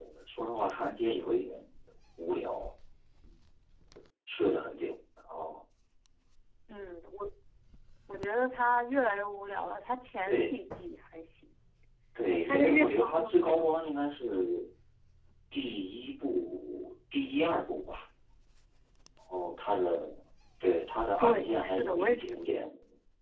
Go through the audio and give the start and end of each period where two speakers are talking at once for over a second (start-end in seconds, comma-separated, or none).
12.3-13.7, 21.2-22.7